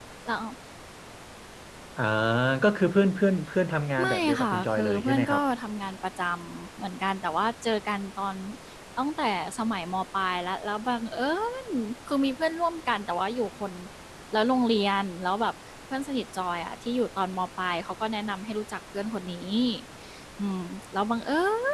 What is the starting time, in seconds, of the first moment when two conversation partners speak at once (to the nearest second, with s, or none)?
4 s